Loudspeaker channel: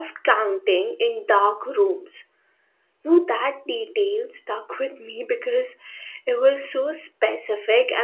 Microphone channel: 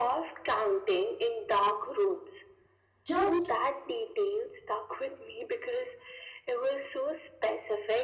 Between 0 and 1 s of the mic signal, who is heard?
echo only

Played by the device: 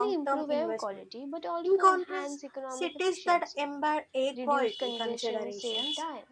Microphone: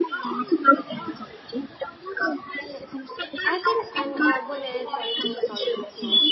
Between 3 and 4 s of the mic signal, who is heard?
both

